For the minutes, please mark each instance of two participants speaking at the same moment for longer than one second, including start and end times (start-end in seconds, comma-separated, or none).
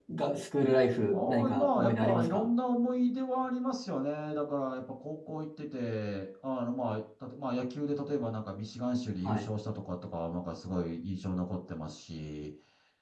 1.1-2.5